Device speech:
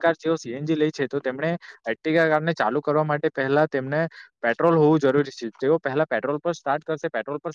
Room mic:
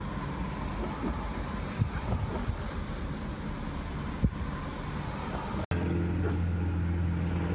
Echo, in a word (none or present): none